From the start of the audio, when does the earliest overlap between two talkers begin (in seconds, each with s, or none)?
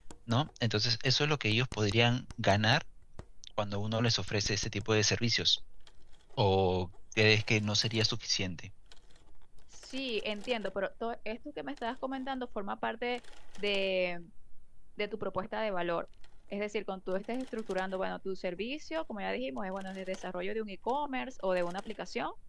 none